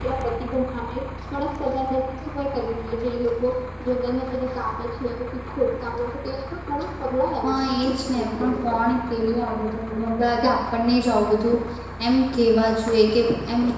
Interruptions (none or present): present